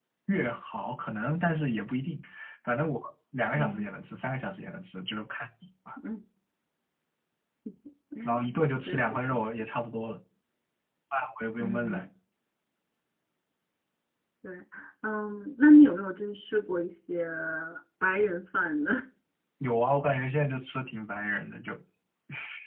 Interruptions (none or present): present